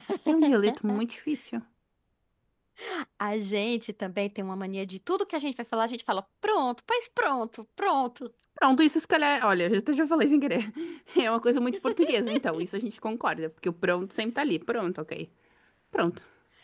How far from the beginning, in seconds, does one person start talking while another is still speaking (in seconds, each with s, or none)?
none